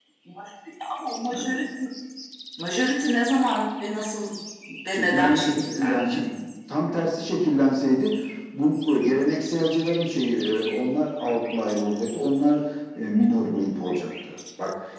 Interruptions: present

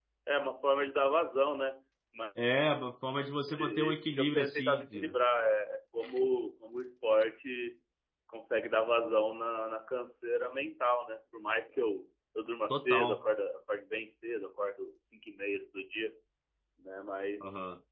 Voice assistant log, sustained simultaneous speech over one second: present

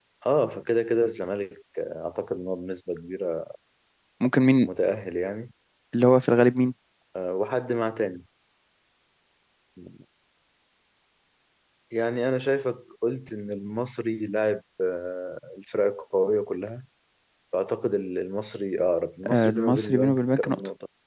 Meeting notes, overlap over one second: present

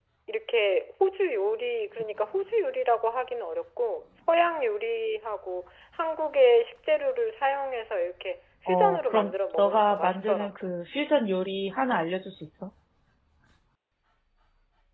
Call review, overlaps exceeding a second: present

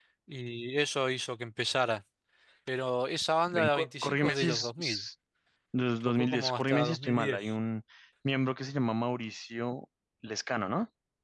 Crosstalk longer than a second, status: present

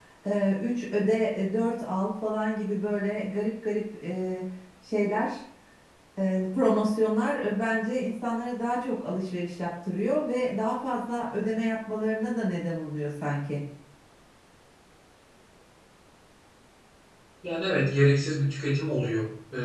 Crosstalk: none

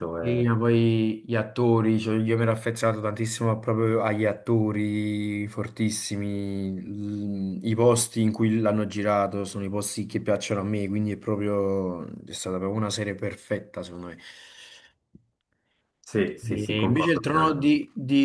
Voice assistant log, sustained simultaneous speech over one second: present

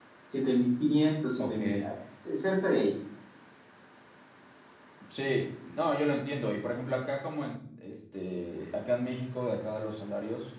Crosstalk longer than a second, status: none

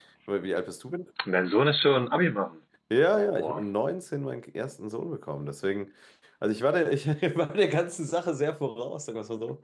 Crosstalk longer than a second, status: none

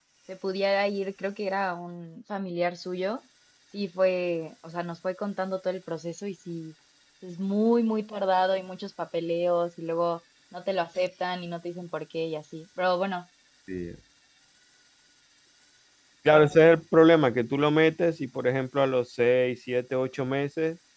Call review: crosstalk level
none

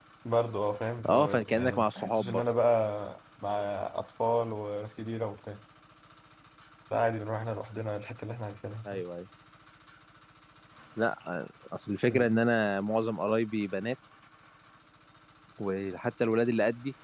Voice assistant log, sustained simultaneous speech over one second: present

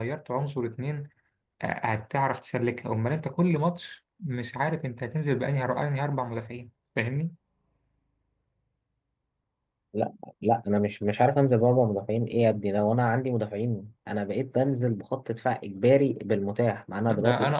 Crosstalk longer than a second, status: none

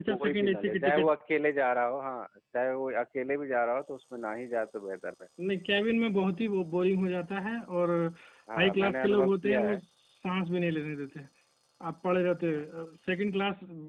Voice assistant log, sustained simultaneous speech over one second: present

